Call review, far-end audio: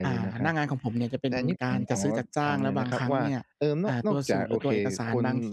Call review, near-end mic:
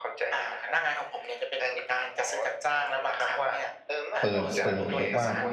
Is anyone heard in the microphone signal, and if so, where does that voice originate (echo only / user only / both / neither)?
both